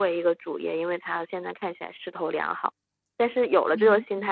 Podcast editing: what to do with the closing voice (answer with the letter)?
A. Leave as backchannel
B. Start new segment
A